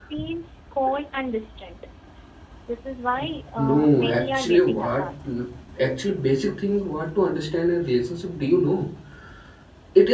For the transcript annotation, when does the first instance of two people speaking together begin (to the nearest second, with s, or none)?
4 s